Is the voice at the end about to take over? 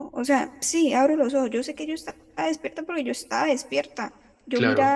No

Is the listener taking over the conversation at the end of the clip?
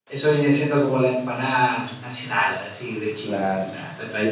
Yes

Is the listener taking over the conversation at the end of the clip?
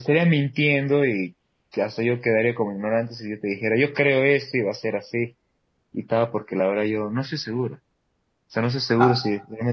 No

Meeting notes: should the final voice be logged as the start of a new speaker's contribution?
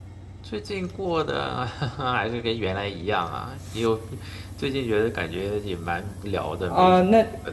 Yes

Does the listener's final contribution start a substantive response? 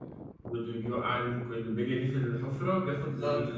Yes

